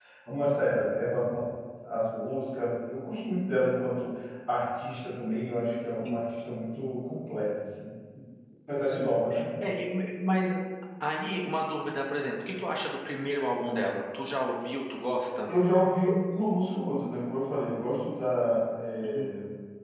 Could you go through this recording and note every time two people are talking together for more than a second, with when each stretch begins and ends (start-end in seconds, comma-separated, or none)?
none